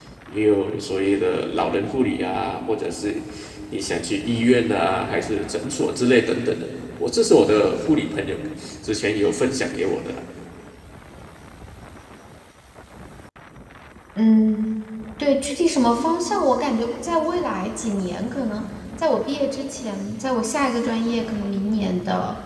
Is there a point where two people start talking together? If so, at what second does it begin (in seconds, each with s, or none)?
none